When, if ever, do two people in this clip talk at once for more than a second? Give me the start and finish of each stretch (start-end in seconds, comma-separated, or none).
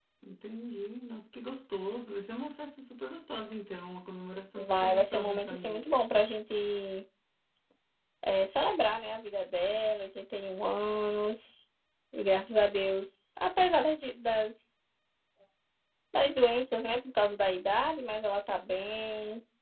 4.5-6.0